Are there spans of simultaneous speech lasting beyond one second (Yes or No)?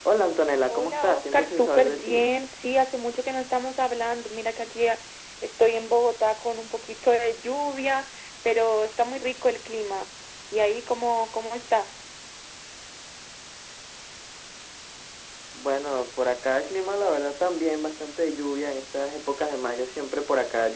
Yes